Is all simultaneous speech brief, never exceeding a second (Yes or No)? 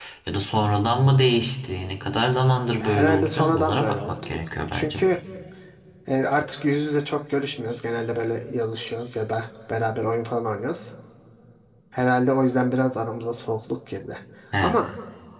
No